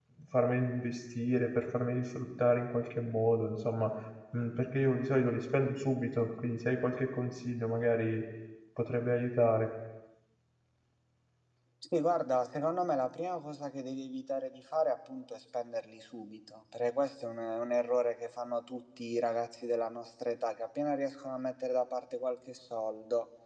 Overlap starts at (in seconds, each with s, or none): none